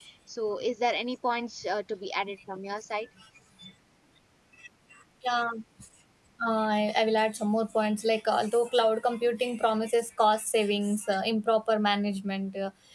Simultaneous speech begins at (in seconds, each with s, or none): none